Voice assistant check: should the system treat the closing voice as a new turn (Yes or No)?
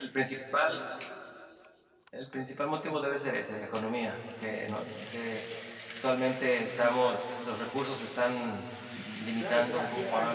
Yes